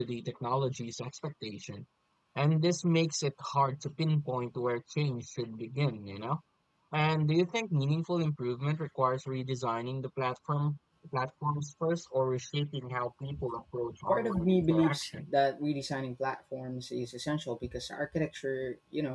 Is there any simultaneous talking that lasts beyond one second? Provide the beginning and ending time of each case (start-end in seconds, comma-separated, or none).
14.1-15.3